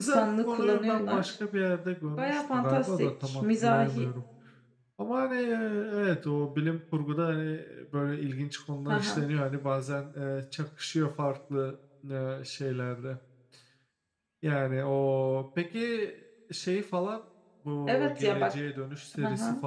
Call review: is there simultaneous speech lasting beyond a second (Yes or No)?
Yes